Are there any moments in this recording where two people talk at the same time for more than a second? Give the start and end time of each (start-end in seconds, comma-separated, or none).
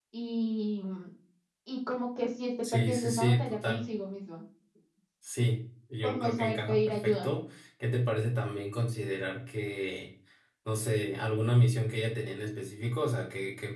2.6-3.8, 6.0-7.3